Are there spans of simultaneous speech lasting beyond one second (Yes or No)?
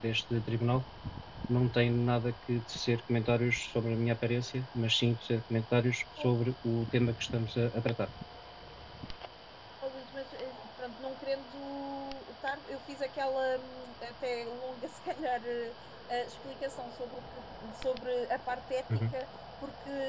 No